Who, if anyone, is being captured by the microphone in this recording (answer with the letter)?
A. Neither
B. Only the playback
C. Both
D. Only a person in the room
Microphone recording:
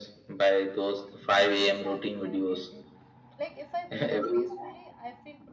C